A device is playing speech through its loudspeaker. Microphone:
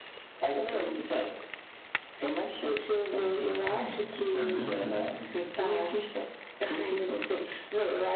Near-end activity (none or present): present